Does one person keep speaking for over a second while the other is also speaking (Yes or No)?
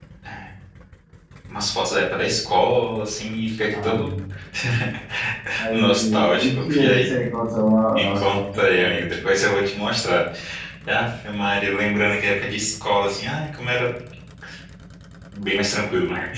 Yes